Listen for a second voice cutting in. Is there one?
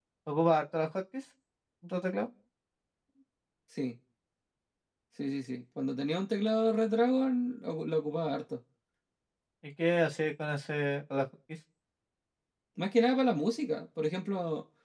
No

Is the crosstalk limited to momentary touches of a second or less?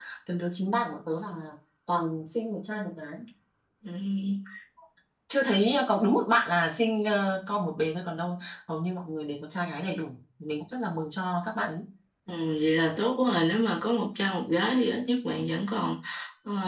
Yes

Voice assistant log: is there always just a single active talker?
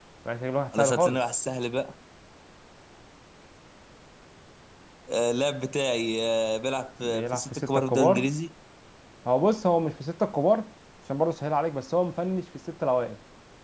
No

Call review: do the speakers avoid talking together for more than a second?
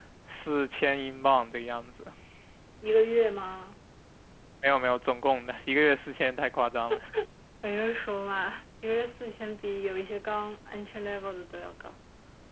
Yes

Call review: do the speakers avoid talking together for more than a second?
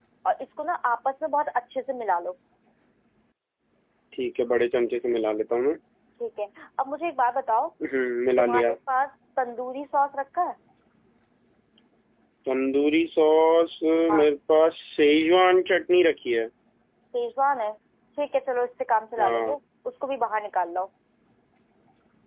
Yes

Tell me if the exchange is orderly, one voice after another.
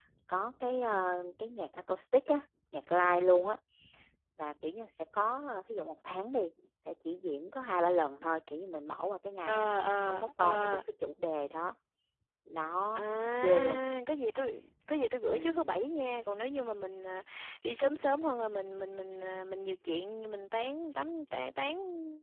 No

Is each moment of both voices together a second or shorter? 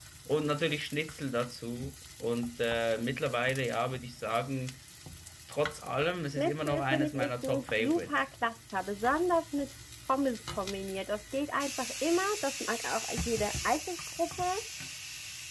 No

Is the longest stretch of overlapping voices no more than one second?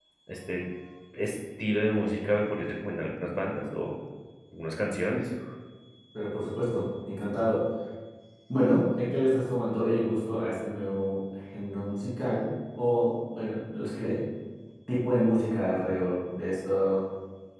Yes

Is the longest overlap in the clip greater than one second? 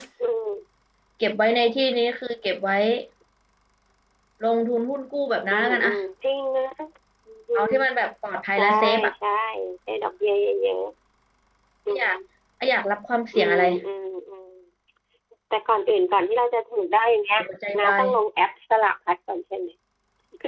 No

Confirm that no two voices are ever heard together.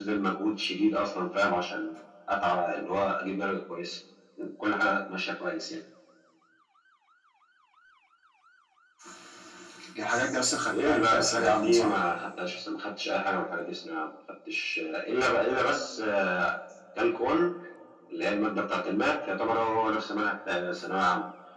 No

